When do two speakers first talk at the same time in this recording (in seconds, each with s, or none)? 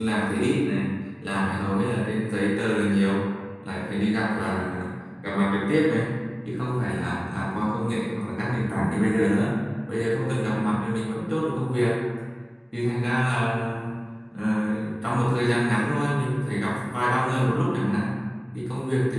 none